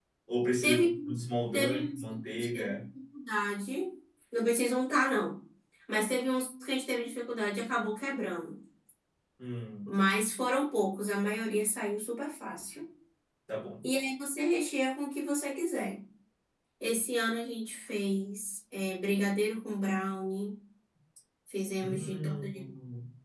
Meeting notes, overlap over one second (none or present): present